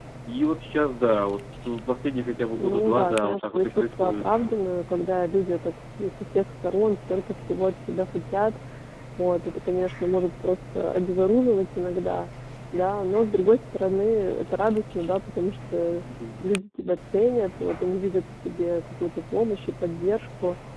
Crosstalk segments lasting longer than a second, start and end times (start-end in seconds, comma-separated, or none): 2.5-4.2